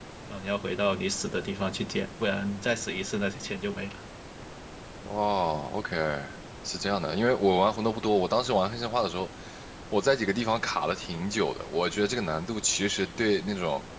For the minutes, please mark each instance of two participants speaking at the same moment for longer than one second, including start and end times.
none

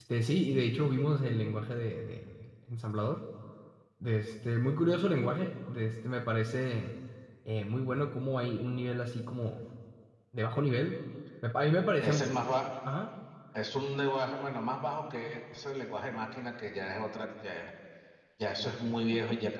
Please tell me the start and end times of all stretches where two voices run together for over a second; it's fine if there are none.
none

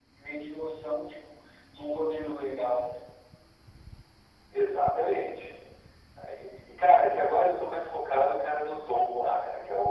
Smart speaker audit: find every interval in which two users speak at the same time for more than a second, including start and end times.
none

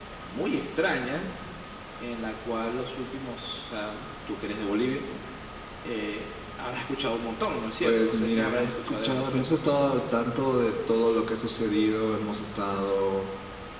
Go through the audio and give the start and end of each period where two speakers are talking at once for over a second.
7.8-9.5

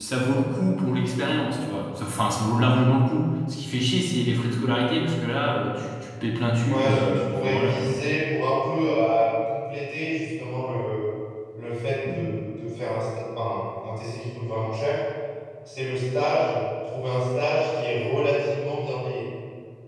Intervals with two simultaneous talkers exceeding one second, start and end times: 6.7-7.9

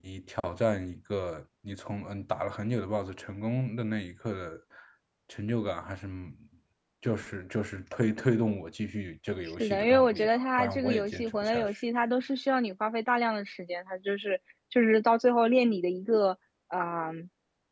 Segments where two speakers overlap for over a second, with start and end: 9.6-11.7

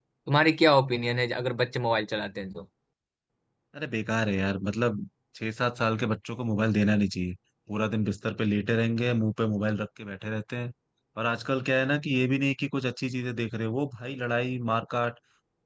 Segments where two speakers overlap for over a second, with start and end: none

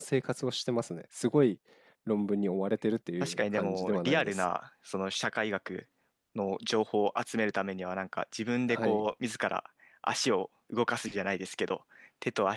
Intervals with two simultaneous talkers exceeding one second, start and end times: 3.2-4.4

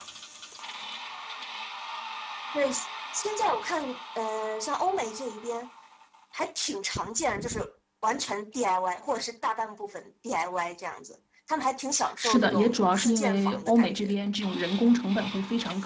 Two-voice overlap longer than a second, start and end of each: 12.2-14.2

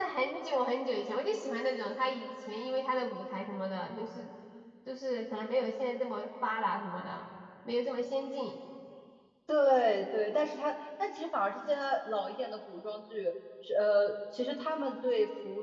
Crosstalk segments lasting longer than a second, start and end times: none

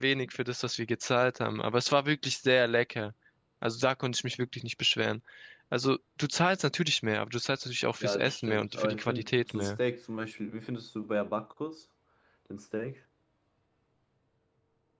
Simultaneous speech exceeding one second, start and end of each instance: 8.0-9.7

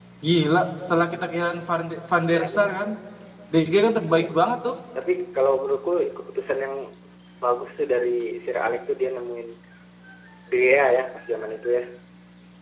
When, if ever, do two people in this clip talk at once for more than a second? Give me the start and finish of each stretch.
none

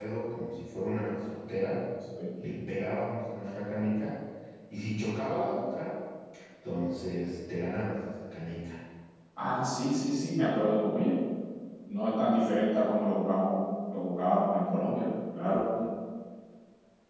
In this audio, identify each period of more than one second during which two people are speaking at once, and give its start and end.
none

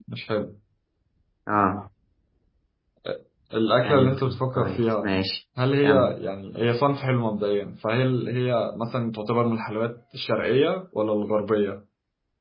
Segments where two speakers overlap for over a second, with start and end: 3.8-5.1

